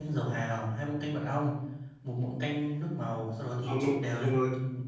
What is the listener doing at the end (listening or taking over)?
taking over